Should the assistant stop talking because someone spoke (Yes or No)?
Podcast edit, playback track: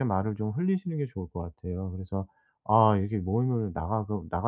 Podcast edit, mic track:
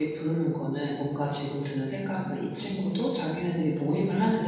Yes